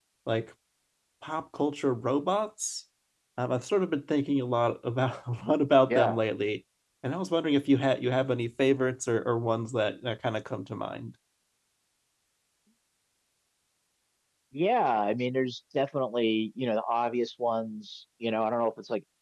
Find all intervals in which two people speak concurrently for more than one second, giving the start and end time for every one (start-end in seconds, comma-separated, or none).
none